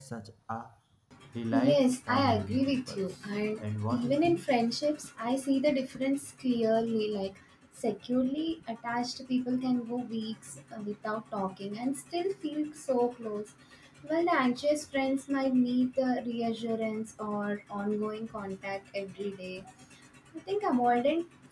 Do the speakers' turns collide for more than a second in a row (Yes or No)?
Yes